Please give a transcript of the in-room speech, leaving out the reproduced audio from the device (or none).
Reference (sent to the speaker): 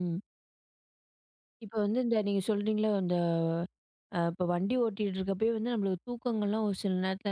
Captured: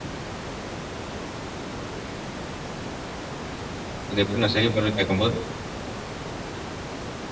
அத எப்படி நான் சரி பண்றேன்னு கேட்கும்போது,